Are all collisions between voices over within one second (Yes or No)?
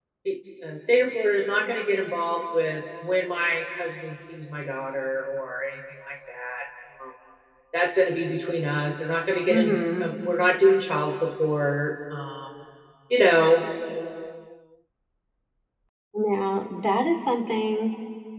Yes